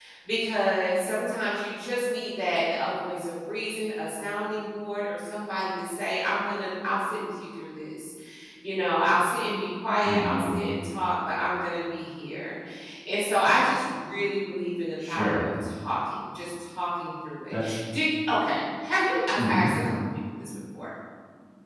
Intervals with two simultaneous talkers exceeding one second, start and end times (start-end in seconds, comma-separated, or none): none